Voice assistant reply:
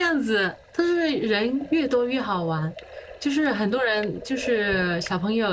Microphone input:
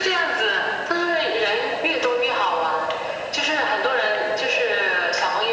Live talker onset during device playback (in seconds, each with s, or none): none